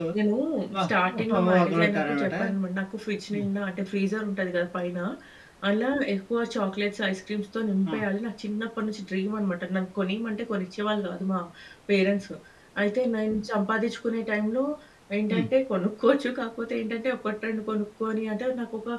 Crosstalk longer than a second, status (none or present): present